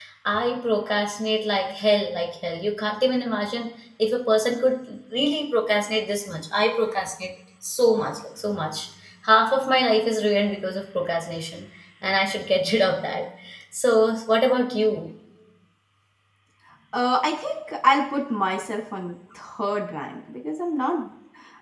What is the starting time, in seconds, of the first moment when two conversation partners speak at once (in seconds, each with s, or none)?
none